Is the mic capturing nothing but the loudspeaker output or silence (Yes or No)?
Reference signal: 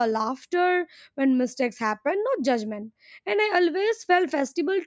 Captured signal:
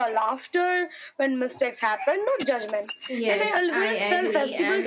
No